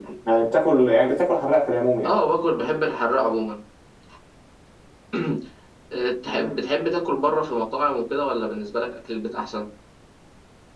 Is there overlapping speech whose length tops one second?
No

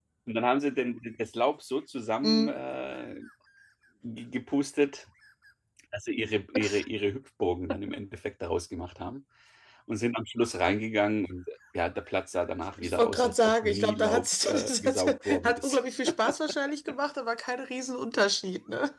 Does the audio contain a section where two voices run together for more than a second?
Yes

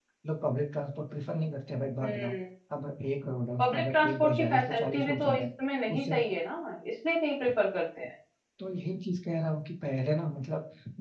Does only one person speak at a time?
No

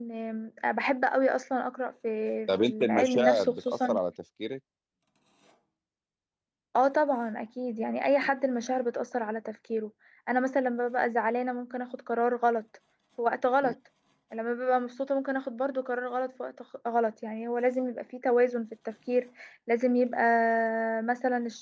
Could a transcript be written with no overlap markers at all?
No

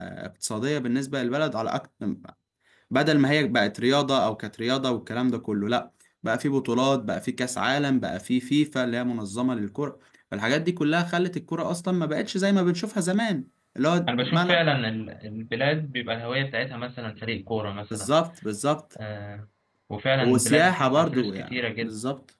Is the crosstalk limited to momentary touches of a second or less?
No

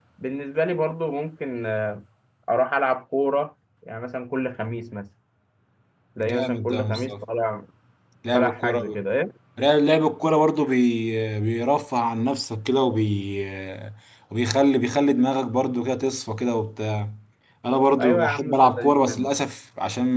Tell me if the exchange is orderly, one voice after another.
No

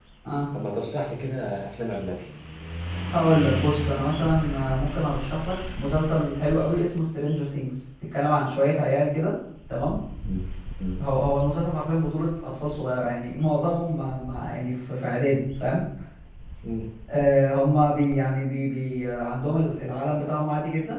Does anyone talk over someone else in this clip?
No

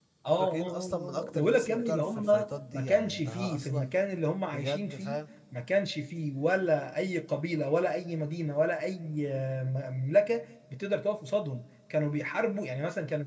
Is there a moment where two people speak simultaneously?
Yes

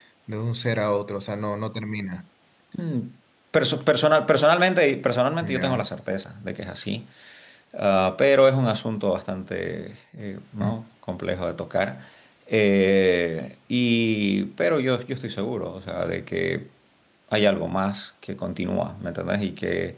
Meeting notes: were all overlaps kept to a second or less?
Yes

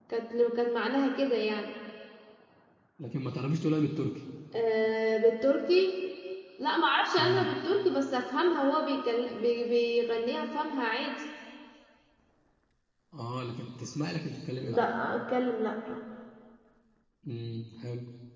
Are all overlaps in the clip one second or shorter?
Yes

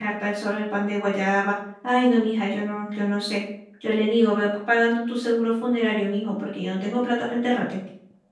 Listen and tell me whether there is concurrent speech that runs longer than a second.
No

